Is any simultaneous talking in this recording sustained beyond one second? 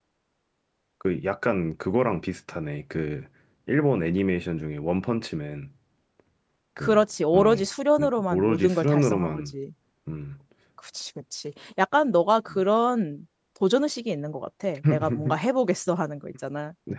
Yes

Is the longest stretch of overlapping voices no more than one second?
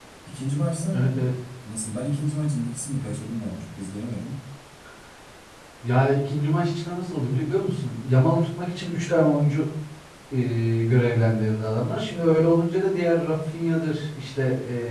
Yes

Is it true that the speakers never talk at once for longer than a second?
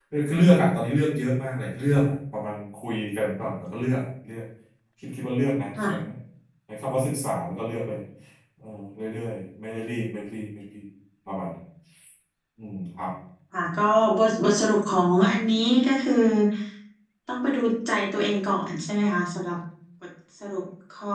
Yes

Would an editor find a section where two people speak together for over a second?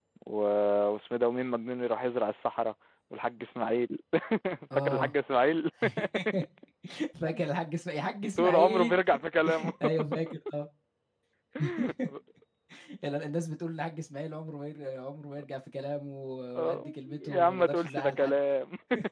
Yes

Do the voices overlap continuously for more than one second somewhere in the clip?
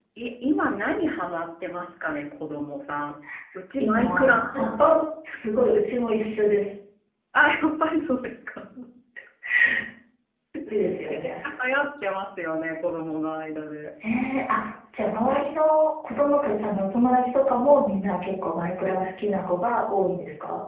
Yes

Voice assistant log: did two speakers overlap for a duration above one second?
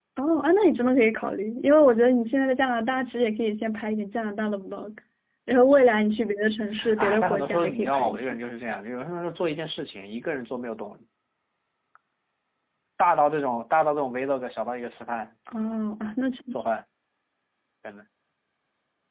Yes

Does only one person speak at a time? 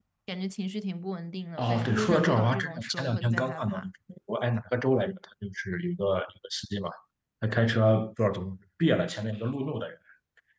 No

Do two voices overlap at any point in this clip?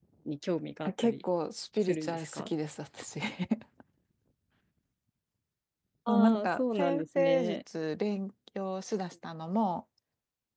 Yes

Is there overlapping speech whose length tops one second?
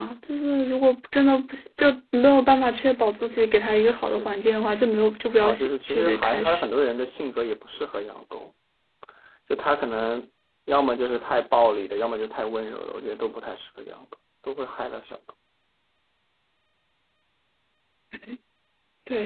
Yes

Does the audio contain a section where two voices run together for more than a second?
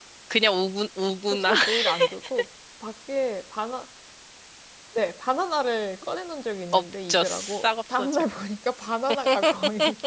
Yes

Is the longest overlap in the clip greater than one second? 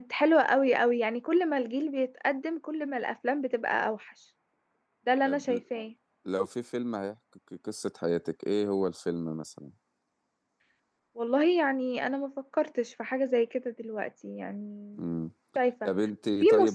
No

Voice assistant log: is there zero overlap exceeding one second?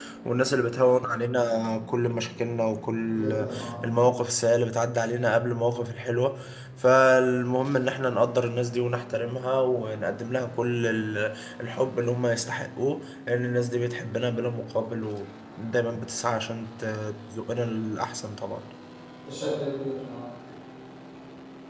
Yes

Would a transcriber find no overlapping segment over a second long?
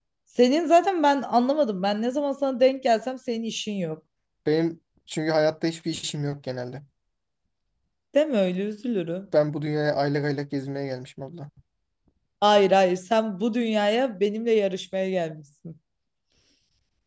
Yes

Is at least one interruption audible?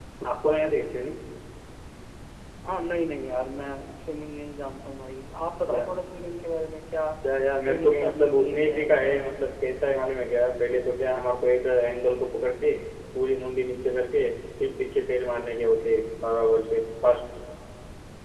Yes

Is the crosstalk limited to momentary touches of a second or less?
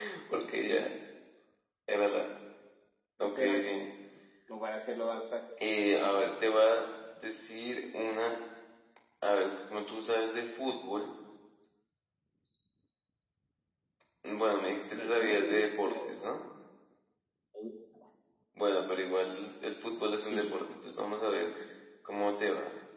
No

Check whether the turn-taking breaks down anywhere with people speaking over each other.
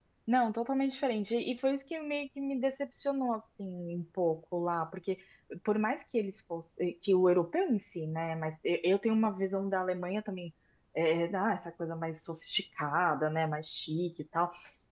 No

